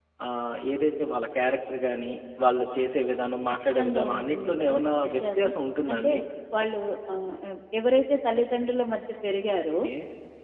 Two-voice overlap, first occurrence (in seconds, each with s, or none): 3.8 s